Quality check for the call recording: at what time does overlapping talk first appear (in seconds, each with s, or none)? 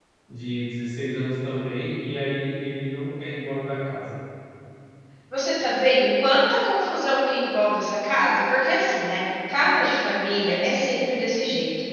none